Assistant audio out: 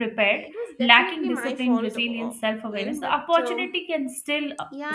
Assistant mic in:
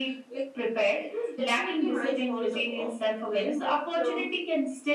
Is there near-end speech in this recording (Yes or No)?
No